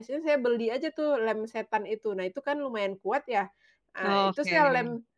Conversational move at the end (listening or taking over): listening